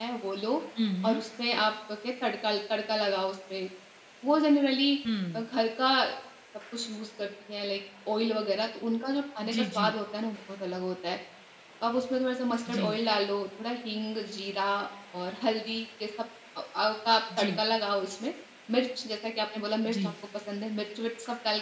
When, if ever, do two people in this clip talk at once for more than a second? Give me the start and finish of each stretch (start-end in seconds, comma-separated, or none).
none